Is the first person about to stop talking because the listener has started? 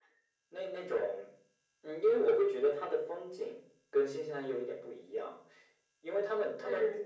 No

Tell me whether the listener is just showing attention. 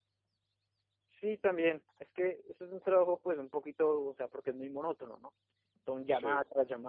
Yes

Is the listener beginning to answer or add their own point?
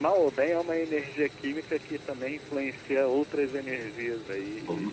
Yes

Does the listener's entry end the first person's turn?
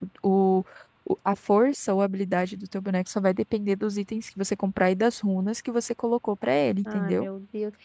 Yes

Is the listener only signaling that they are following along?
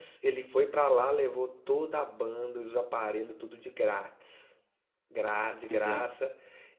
Yes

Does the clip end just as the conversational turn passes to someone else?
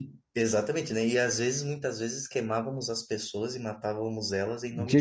Yes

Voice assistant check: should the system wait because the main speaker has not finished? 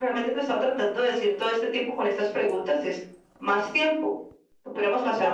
No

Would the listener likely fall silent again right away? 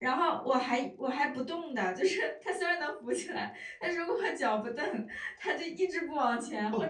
No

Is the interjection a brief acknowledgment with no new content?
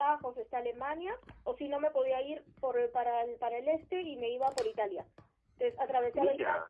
Yes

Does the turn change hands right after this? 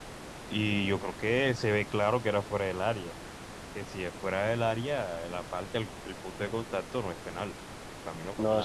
Yes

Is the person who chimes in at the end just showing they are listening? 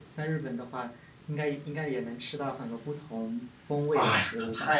No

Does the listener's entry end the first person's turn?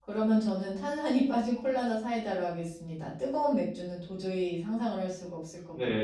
Yes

